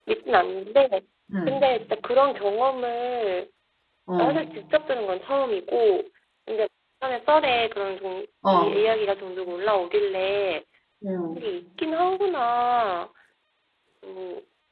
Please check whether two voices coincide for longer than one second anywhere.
No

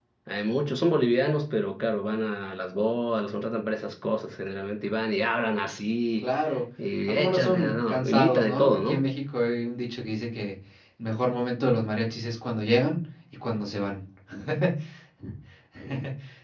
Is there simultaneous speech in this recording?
Yes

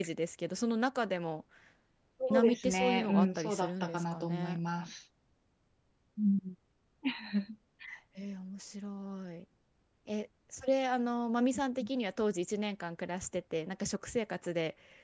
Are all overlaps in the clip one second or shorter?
No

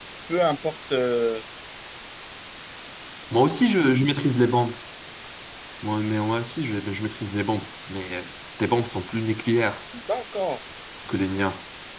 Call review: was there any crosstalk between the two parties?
No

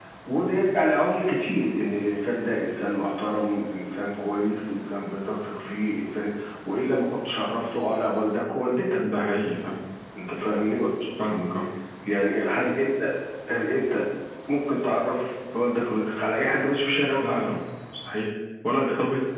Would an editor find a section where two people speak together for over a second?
No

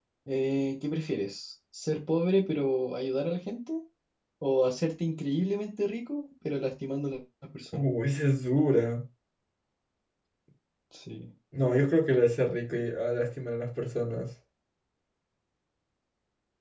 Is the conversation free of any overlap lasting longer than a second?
Yes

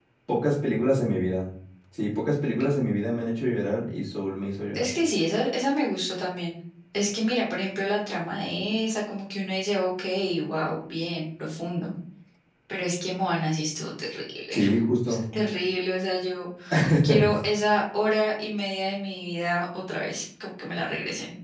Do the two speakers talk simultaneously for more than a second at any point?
No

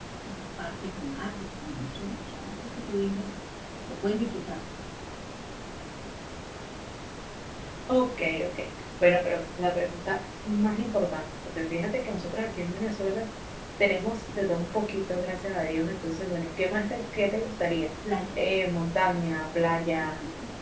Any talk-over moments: No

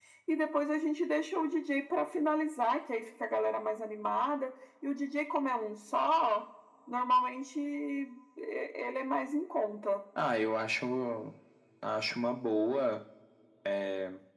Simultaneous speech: No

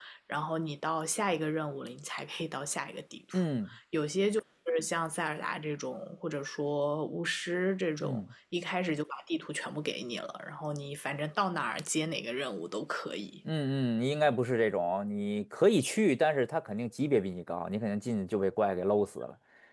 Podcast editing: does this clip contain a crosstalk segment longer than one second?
No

